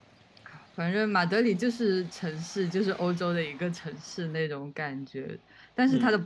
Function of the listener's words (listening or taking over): listening